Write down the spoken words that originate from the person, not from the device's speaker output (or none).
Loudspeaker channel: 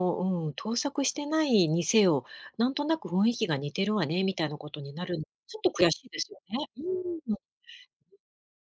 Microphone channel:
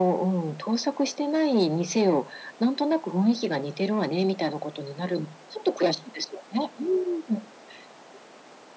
none